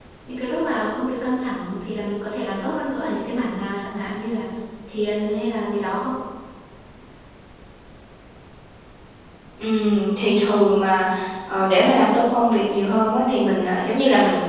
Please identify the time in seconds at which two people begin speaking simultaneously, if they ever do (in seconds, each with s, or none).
none